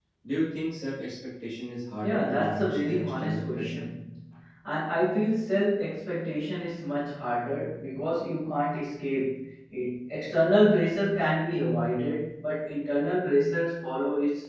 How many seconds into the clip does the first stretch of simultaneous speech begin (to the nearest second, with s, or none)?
2 s